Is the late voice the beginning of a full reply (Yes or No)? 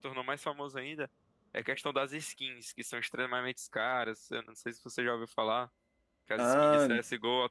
No